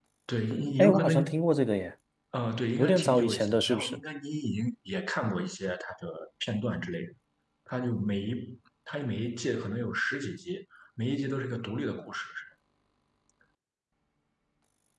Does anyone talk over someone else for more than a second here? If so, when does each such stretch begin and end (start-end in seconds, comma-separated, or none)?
2.8-4.0